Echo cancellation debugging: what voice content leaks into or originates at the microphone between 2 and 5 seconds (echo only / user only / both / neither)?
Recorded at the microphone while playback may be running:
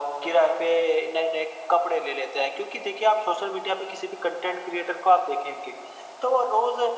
echo only